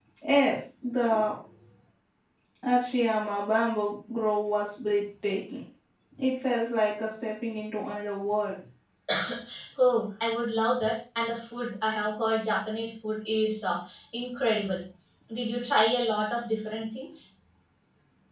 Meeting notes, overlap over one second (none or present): none